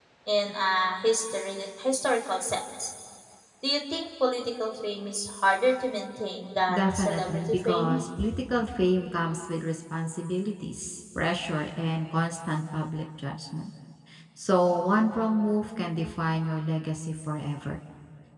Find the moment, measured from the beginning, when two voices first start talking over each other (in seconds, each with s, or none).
6.7 s